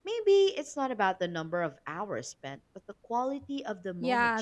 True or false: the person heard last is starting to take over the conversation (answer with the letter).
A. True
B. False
A